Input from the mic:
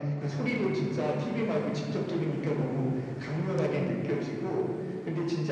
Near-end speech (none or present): none